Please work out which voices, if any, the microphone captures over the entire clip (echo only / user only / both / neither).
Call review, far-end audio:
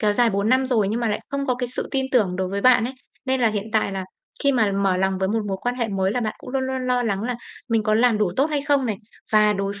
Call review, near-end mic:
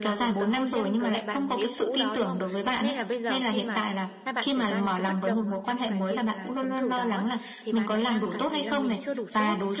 both